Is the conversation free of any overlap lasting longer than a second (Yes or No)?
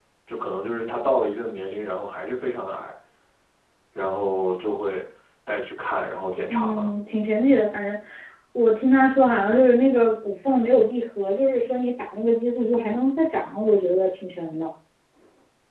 Yes